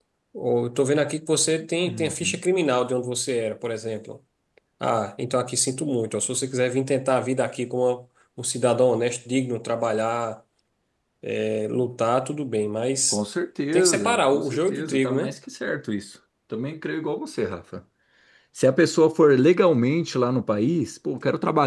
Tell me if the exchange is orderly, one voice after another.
No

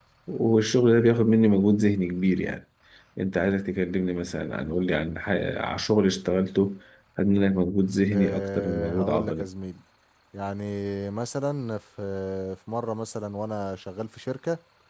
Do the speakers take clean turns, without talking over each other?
No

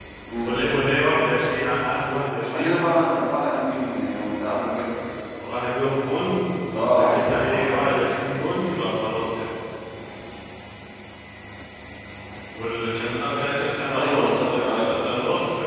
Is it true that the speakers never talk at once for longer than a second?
No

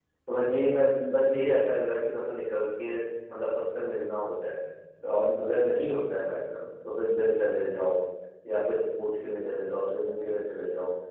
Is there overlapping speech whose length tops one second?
No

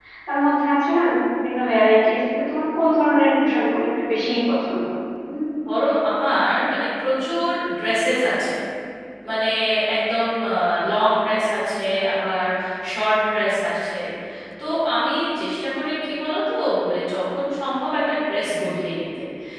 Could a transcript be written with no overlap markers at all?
Yes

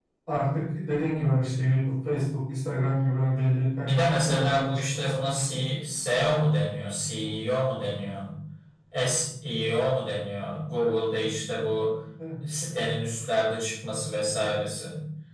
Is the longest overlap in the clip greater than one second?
Yes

